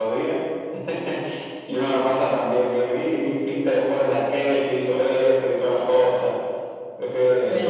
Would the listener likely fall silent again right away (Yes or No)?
No